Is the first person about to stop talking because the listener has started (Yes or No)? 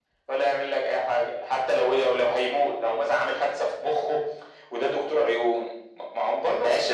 Yes